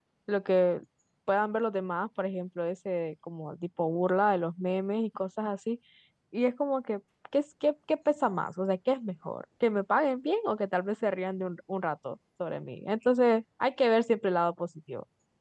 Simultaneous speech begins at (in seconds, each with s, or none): none